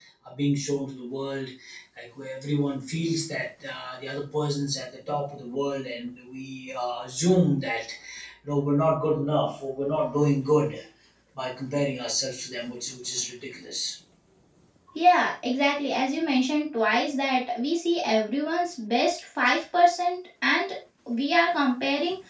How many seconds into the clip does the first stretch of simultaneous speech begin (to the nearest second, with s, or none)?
none